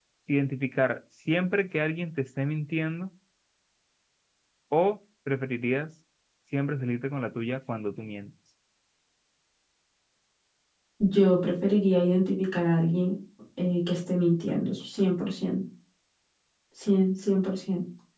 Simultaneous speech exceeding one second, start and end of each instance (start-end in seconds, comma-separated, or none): none